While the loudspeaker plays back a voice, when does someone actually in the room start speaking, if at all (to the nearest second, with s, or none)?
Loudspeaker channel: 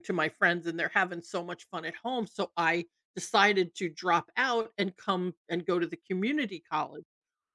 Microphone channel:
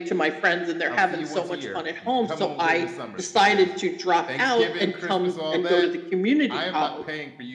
1 s